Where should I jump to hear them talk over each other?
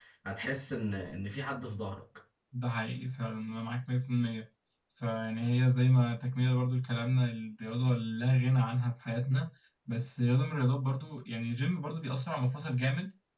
none

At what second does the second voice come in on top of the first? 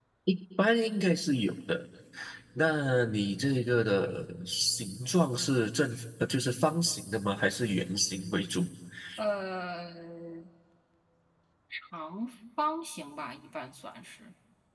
none

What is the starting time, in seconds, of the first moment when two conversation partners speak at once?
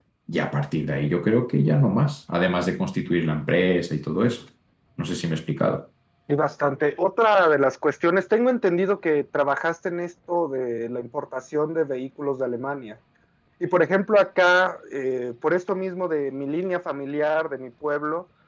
none

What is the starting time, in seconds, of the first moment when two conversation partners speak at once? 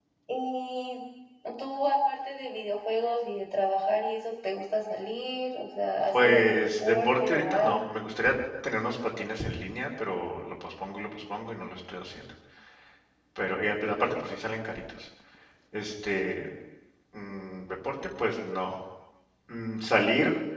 6 s

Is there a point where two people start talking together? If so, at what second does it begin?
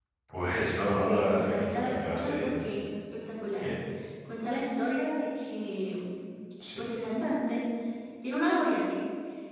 1 s

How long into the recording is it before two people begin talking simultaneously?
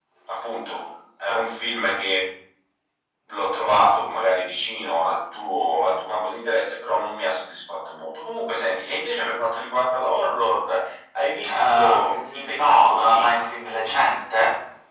11 s

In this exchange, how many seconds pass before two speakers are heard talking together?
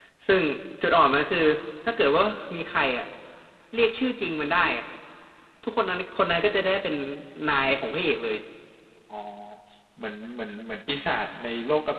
none

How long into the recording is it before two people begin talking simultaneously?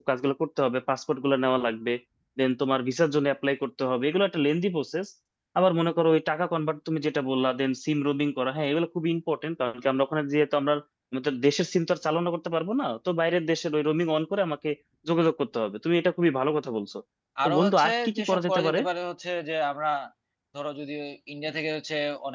17 s

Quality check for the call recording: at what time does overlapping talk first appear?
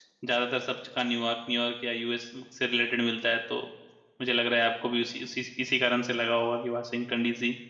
none

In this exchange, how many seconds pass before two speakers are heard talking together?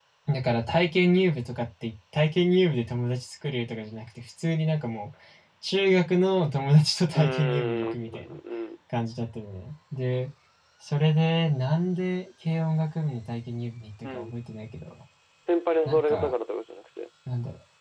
7 s

